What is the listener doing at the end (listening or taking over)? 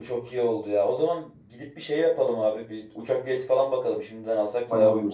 taking over